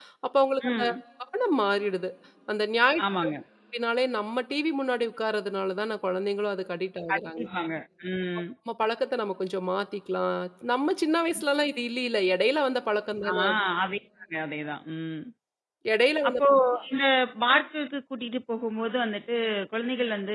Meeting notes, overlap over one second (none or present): none